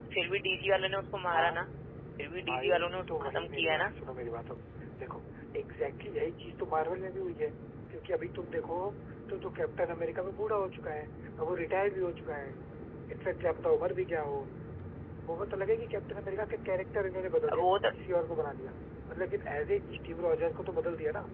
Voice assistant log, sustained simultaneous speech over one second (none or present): present